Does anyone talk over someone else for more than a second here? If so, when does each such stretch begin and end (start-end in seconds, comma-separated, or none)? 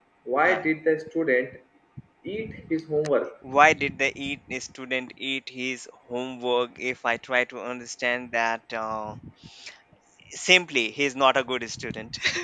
none